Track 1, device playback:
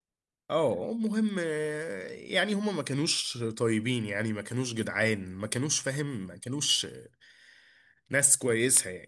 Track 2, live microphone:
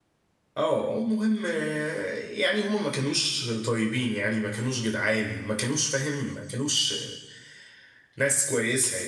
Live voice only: none

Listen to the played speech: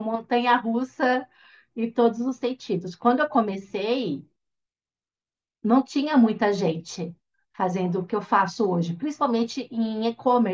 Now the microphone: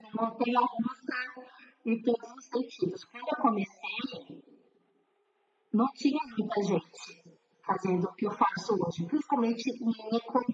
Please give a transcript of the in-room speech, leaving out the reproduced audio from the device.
none

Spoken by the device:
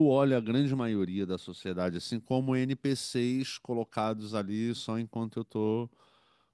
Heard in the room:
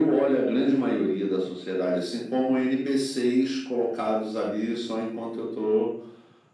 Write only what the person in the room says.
none

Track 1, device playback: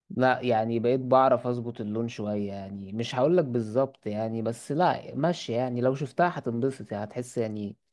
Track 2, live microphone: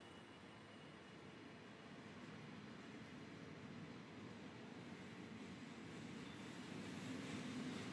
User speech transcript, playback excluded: none

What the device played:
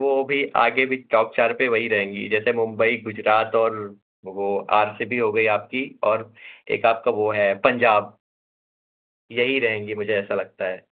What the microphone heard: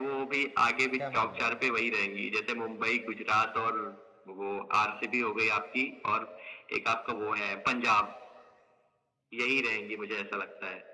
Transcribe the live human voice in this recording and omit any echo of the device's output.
क्या मान रहे हो

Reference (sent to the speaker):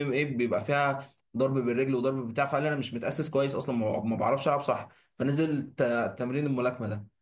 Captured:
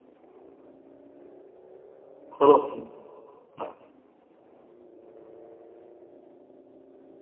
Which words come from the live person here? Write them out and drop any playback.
خلاص تمام طيب،

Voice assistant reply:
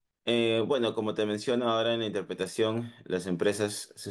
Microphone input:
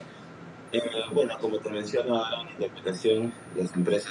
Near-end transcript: none

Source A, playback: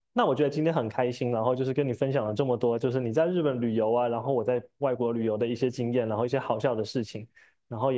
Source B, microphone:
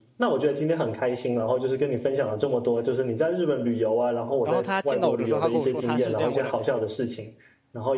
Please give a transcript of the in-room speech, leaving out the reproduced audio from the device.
然后他见到我的时候，他跟我说他是这样问的，

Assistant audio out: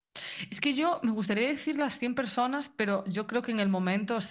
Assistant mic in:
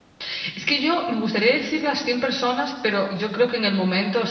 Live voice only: none

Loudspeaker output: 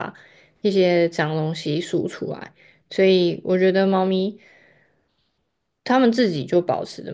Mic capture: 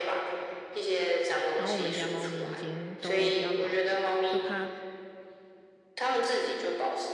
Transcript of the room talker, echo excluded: 然后我们家猫咪已经都比较老了，就怕

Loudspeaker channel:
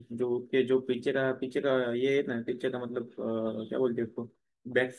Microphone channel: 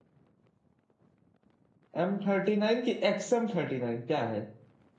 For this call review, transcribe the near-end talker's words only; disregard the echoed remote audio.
एम थर्टी नाइन की एक्स एम थर्टी नाइन क्या है

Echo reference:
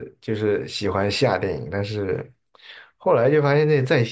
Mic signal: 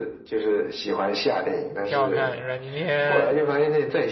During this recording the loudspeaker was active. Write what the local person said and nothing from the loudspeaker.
挺好看，阮经天。

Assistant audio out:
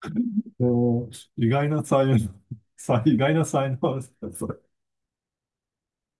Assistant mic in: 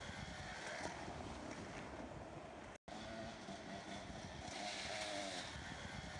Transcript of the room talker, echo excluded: none

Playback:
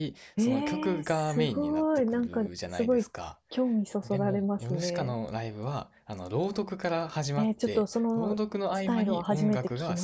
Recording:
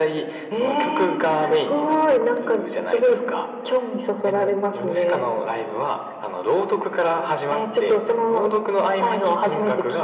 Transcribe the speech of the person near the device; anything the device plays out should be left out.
none

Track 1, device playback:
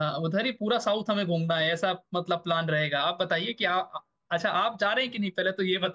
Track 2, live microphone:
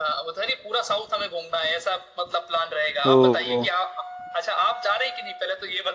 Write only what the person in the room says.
ओ

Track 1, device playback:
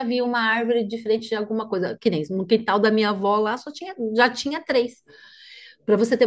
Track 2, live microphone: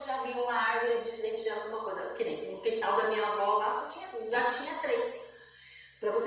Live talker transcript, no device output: none

